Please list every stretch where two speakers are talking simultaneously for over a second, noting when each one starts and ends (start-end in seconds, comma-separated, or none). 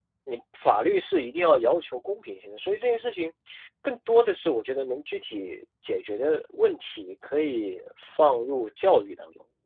none